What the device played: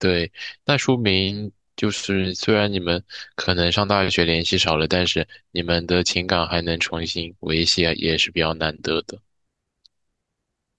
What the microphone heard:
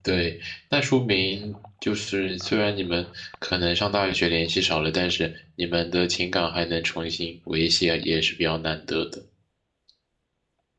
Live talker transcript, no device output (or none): none